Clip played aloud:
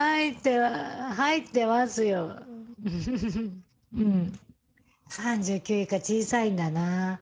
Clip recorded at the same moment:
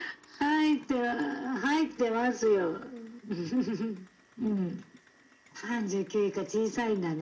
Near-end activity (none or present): none